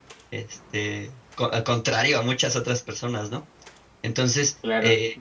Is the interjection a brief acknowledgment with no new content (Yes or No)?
No